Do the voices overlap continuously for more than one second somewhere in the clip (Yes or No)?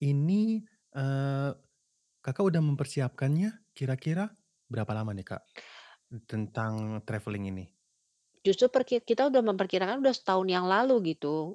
No